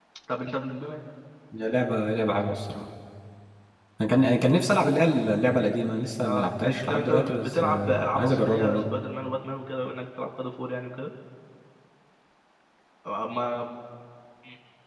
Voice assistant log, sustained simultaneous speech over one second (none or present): present